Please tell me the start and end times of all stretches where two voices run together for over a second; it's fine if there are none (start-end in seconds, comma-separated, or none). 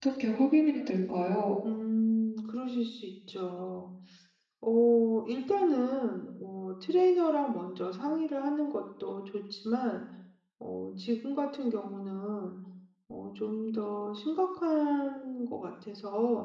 none